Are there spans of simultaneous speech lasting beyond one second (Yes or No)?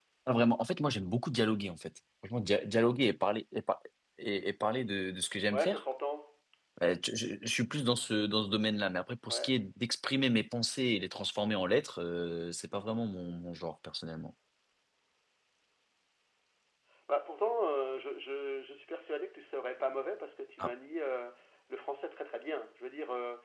No